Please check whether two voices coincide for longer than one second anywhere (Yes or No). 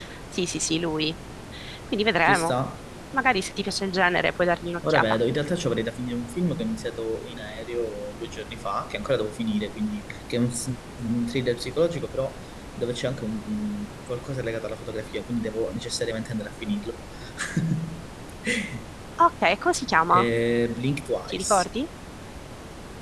No